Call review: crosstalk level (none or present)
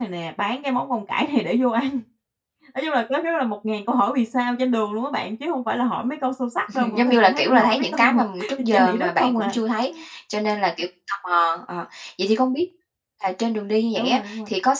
present